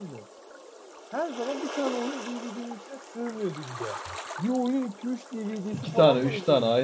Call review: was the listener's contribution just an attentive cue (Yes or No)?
No